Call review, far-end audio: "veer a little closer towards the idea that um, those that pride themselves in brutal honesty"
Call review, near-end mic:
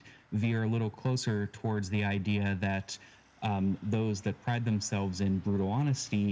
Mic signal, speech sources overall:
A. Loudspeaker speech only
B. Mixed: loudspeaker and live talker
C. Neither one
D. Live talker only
A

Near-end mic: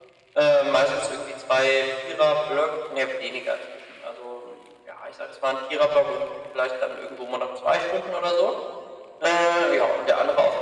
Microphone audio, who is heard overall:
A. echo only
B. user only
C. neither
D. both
A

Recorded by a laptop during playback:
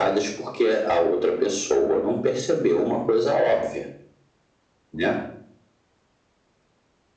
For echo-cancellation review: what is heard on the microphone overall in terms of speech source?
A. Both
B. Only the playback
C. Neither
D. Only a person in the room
B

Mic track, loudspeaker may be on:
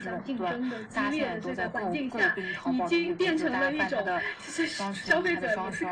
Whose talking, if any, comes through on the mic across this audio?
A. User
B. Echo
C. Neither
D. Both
B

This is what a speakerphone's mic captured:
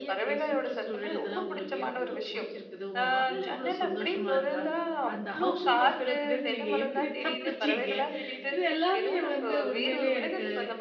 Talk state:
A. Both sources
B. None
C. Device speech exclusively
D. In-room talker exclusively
A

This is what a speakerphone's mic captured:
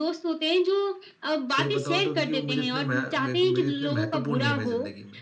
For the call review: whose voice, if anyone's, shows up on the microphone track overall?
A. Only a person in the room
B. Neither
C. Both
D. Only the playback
C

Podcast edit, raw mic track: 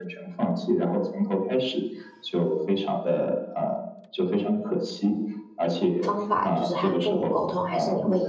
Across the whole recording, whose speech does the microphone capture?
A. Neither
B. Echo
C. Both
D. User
C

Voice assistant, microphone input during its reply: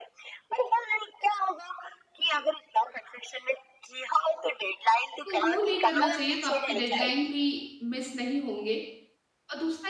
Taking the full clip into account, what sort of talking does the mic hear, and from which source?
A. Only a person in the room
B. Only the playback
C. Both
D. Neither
C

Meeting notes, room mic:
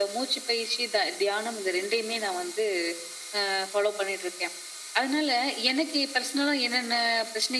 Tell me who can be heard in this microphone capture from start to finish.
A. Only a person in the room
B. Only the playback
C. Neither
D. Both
B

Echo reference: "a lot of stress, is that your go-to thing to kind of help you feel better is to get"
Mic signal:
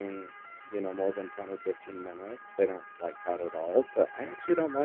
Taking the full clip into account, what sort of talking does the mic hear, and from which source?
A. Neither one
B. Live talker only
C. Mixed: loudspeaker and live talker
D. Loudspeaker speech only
B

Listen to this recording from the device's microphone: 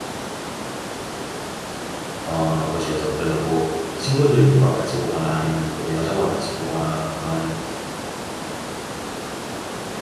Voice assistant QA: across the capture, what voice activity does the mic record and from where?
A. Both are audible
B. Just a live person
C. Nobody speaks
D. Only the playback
B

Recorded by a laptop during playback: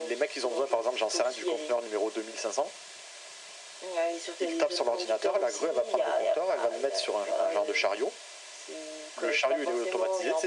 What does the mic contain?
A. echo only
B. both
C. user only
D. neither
A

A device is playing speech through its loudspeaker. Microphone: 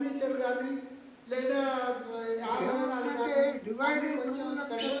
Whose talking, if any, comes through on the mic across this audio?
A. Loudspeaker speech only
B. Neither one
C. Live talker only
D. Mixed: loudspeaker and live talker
D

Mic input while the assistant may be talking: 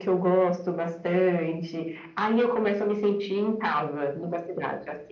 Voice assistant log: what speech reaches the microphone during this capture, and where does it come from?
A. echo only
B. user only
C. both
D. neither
A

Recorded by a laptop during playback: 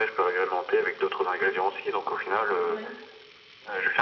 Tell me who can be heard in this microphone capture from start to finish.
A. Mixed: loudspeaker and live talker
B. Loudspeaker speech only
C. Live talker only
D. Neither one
A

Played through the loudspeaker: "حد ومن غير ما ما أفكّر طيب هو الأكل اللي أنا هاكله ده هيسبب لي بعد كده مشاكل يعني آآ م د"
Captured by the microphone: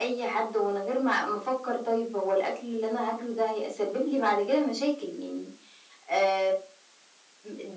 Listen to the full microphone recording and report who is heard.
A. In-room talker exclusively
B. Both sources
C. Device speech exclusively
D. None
C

